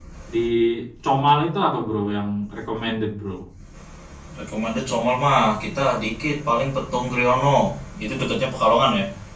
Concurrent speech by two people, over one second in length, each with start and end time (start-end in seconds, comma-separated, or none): none